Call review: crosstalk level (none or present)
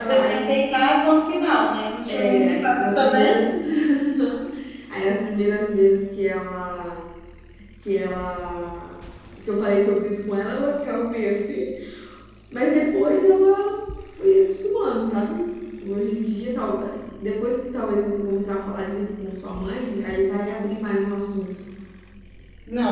present